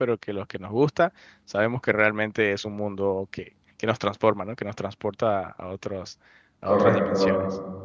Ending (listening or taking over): taking over